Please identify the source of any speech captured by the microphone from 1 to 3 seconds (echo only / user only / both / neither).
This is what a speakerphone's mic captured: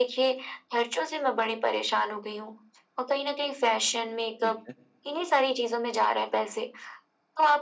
echo only